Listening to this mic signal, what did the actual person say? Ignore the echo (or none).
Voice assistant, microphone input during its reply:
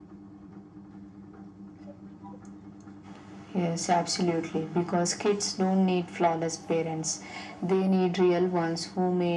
none